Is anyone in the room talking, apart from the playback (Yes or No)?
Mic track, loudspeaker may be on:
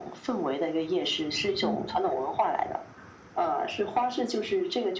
Yes